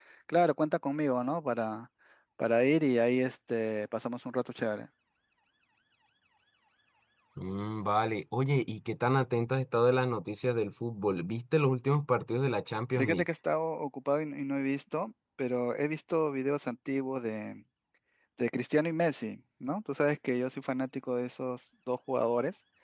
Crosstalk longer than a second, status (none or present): none